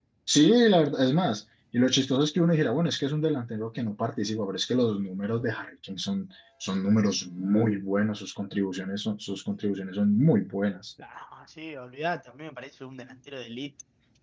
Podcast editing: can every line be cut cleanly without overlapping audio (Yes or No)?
Yes